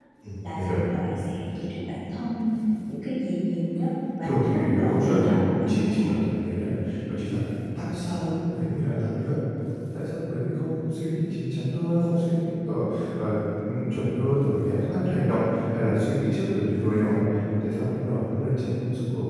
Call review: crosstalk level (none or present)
present